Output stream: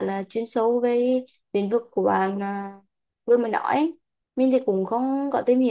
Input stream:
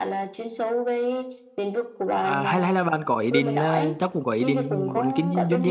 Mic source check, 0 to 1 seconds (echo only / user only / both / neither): echo only